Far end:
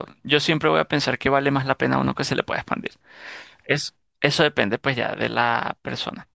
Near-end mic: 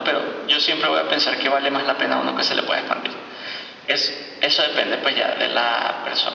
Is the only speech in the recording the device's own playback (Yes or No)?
Yes